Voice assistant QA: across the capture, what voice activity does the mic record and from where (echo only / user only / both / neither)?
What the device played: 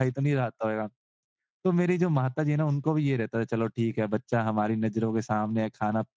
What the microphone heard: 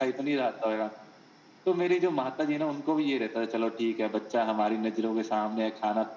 echo only